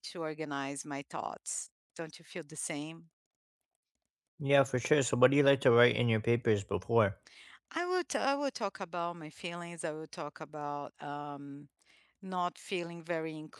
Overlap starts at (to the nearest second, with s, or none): none